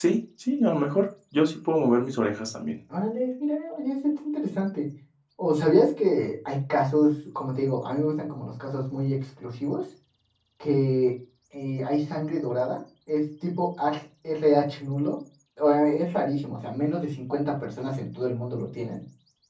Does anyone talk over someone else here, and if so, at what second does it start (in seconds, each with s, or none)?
none